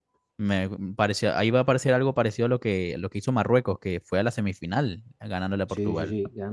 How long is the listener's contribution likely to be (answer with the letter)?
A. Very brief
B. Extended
B